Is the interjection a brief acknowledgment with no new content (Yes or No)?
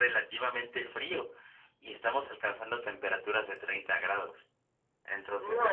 No